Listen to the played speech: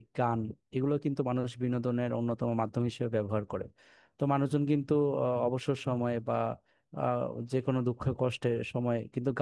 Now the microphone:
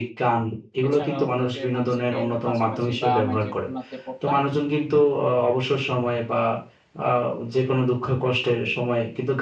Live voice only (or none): এছাড়াও হচ্ছে ভার্সিটির কাছাকাছি বা আমি যে খুলনাতে পড়তাম